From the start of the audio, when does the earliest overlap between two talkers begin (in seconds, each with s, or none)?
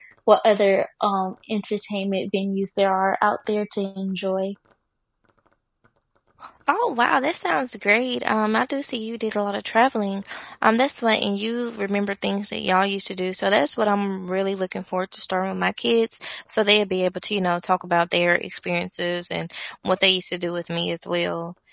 none